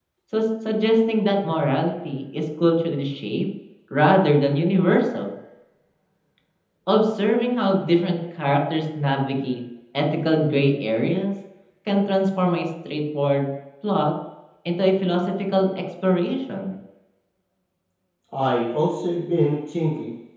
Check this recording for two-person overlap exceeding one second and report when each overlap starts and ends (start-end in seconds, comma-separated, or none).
none